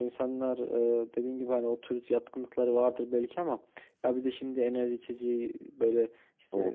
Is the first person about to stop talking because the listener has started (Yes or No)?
No